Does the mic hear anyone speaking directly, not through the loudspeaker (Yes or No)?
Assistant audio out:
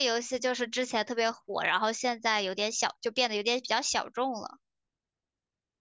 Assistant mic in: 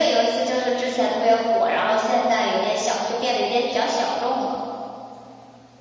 No